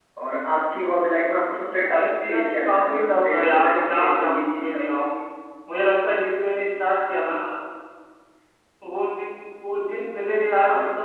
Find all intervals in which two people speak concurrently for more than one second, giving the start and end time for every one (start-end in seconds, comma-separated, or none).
1.8-4.8